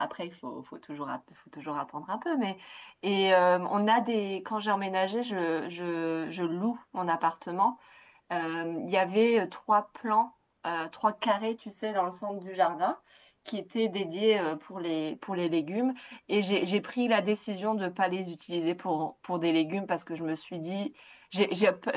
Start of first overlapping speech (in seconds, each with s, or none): none